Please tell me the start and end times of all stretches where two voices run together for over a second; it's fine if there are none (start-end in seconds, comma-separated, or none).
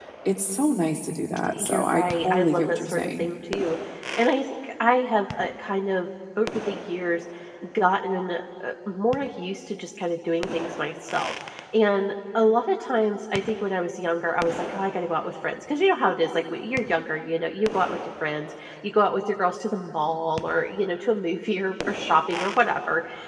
1.6-3.3